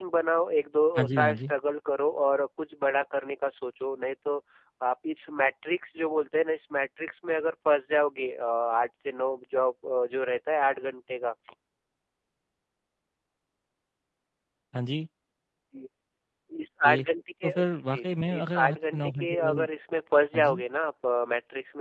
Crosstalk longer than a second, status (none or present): present